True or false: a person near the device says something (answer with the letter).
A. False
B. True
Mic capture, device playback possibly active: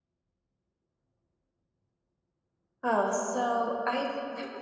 B